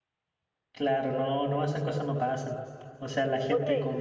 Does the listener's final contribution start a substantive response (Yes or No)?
No